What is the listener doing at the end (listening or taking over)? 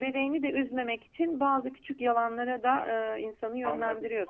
taking over